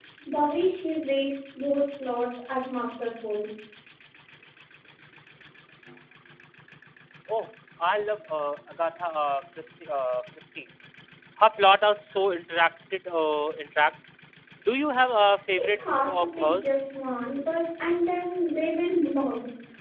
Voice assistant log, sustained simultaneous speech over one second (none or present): present